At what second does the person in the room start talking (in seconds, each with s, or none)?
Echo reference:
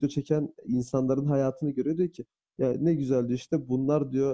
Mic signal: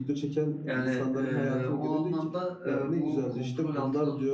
0.7 s